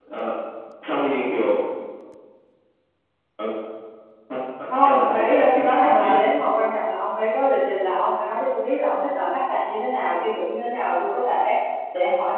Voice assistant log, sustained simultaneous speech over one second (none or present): present